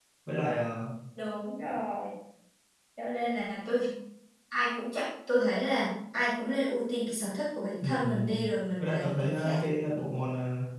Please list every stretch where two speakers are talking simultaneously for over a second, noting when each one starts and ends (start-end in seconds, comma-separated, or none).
7.8-9.6